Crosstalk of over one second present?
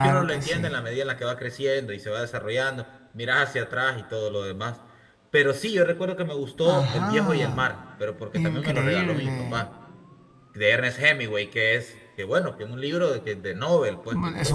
Yes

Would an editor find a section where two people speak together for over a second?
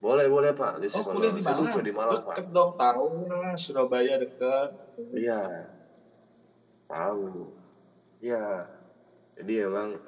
Yes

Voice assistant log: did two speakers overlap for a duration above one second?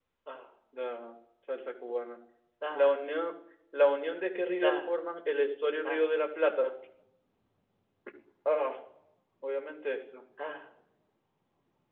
No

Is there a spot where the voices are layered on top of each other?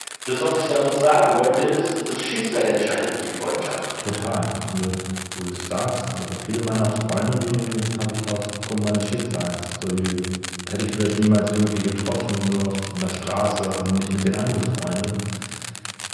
No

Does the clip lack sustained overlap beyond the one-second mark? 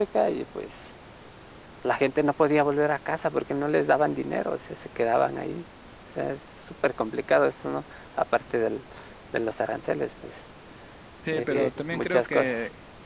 No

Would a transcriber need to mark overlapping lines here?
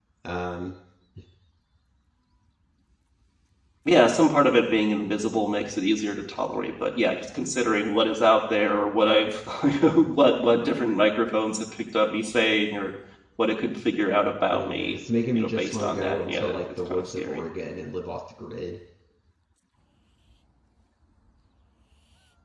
Yes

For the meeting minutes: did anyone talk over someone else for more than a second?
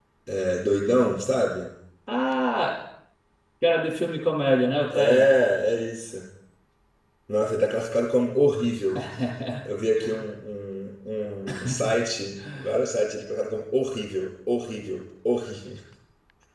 No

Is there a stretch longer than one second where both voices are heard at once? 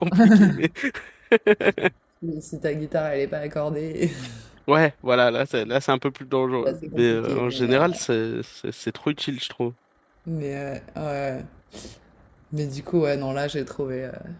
Yes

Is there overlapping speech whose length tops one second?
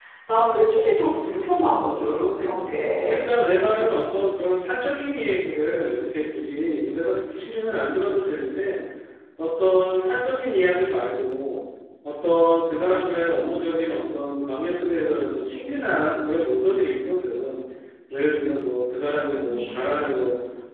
Yes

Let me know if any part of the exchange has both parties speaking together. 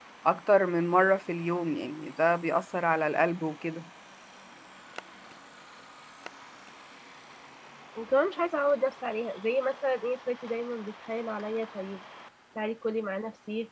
No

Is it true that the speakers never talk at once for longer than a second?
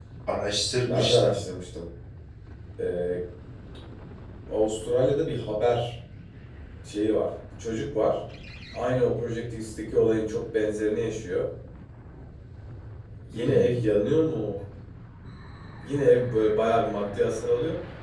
Yes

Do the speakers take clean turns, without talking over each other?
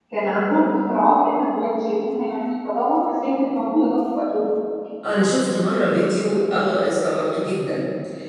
Yes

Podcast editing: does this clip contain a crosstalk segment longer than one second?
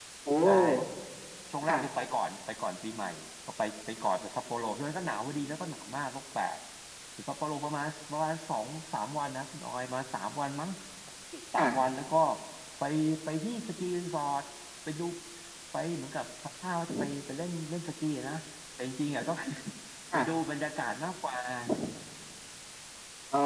No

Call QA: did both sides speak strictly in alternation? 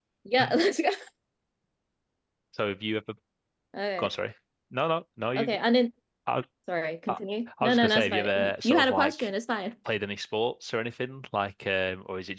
No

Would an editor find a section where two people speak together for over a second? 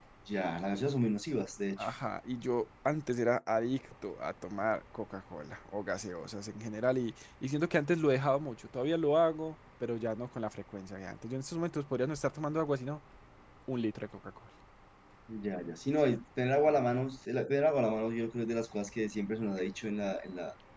No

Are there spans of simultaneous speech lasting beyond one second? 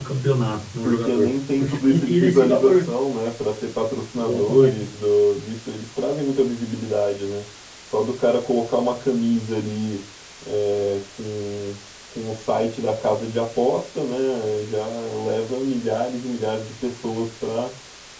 Yes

